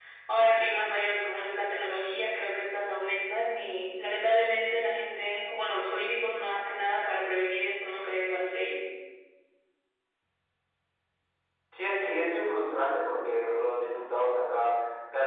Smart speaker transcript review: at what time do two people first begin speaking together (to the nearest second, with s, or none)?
none